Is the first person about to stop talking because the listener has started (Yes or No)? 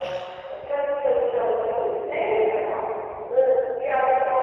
No